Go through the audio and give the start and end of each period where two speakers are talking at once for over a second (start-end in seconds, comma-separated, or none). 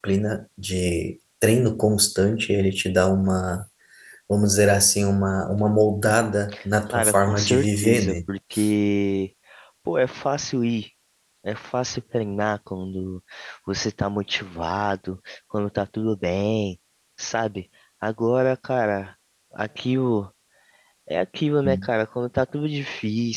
6.9-8.2